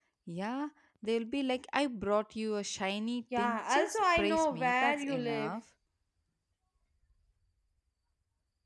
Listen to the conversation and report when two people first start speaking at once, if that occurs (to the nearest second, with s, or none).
3 s